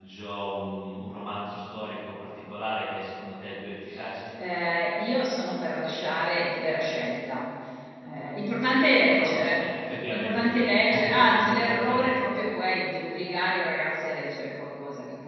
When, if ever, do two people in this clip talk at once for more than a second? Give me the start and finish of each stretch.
10.1-12.4

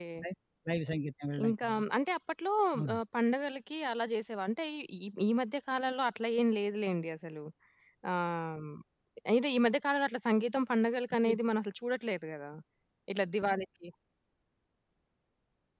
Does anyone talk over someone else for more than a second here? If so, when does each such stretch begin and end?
none

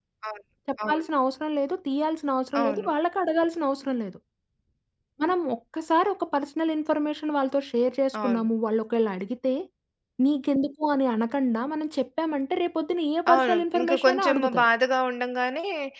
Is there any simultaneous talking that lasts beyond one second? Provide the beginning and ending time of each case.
13.3-14.7

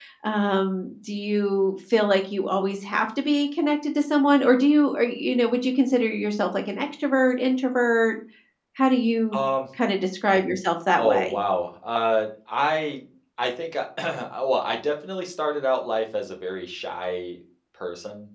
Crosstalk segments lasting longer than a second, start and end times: none

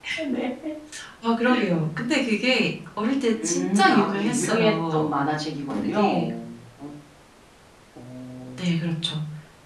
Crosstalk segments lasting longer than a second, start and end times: 3.3-5.0

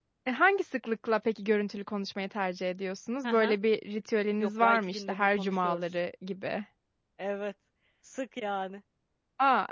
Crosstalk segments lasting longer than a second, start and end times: 4.4-5.8

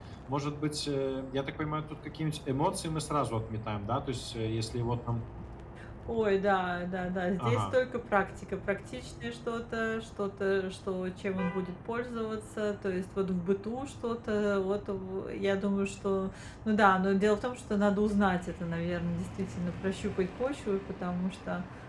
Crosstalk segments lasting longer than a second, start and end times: none

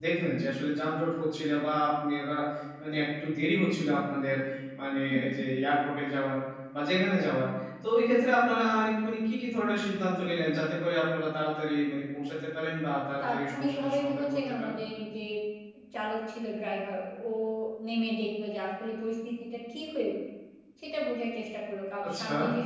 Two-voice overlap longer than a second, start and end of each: 13.2-14.7

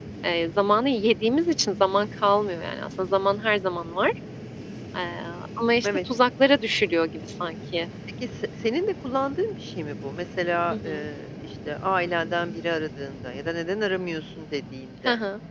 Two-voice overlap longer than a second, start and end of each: none

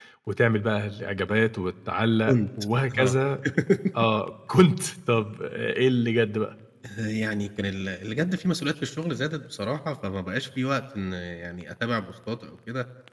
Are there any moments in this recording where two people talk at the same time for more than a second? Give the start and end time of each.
none

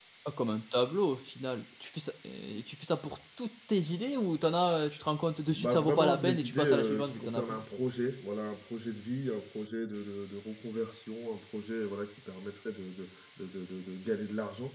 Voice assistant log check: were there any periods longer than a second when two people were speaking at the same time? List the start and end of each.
5.5-7.6

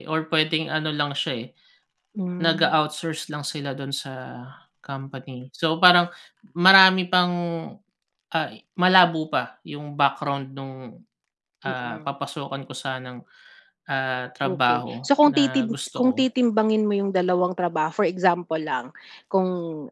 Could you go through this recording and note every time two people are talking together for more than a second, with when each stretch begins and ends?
14.4-16.2

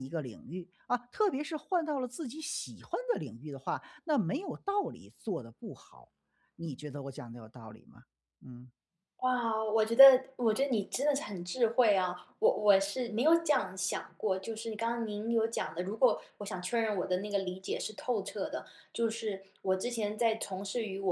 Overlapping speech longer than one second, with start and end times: none

